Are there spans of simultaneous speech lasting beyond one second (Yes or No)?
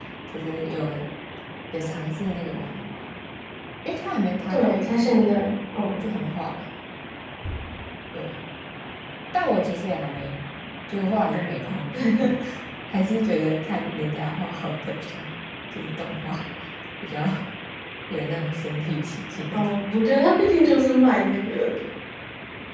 No